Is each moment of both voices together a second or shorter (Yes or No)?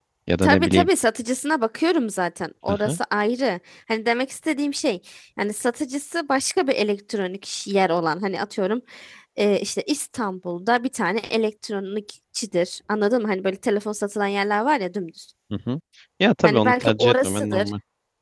No